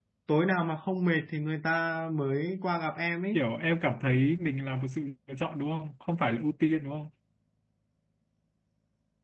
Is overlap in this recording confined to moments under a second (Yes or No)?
Yes